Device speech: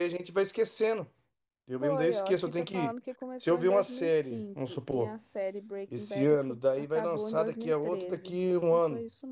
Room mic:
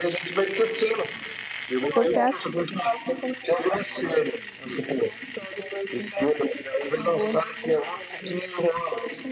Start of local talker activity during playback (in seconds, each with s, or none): 1.9 s